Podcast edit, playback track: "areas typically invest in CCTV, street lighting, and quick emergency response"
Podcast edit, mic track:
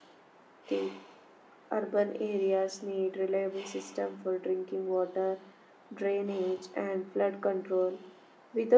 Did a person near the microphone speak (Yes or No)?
Yes